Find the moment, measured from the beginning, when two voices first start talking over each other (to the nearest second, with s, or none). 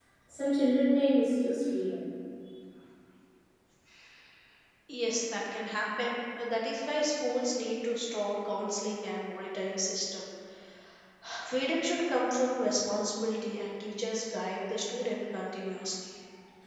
none